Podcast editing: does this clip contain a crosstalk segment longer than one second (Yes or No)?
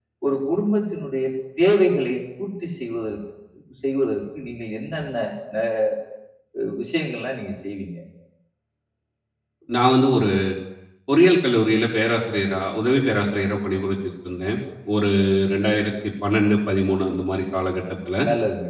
No